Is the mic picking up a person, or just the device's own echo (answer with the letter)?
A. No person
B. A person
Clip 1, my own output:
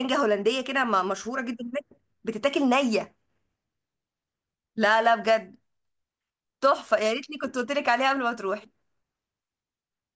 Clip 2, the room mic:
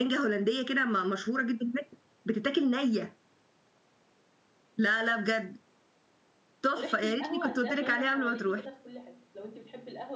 B